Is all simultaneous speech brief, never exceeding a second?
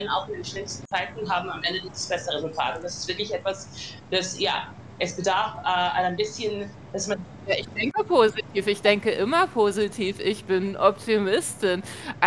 Yes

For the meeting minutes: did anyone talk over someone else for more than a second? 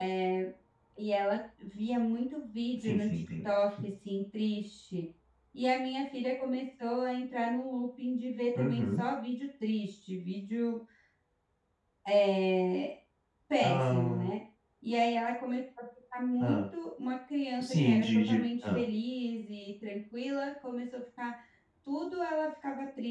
Yes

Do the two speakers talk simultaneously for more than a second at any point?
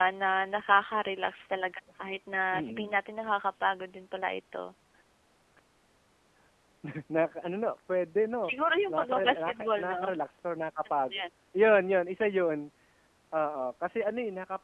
Yes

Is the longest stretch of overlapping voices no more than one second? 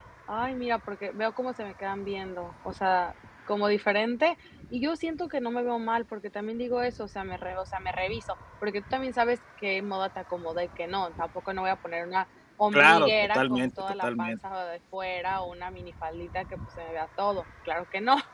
No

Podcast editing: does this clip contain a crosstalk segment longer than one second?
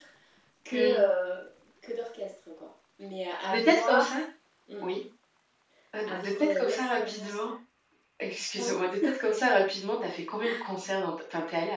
Yes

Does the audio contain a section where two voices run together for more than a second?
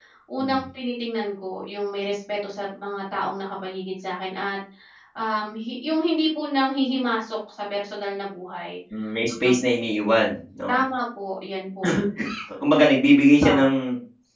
No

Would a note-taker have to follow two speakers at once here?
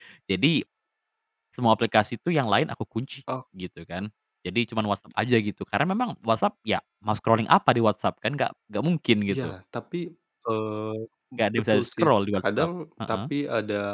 Yes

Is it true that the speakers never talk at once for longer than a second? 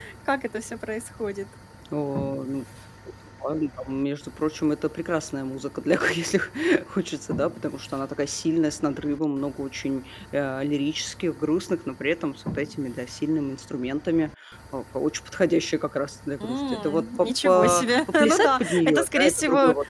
No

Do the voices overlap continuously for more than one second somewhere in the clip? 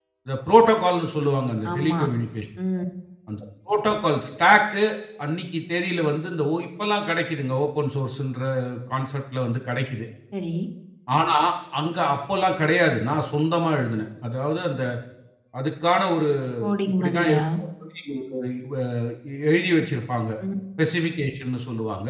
No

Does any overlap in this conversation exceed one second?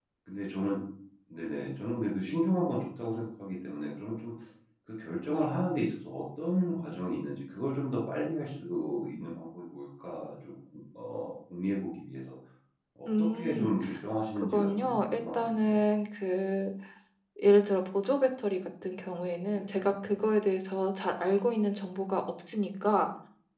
Yes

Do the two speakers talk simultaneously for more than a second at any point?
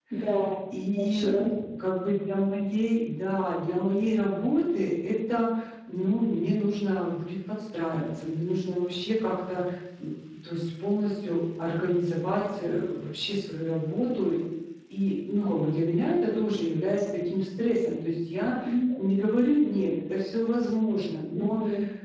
No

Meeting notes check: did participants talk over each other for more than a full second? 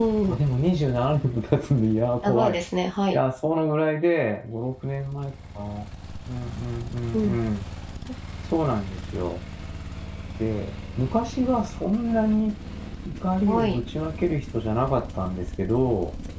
No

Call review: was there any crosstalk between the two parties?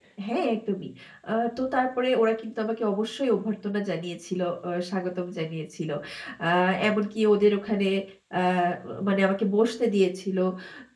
No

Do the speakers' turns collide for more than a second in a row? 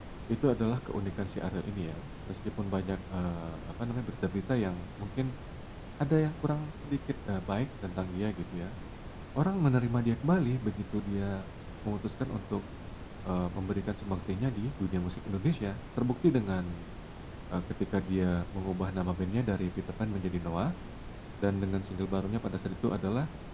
No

